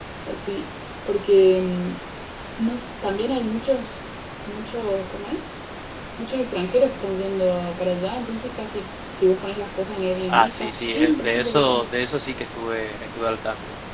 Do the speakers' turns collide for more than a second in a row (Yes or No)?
Yes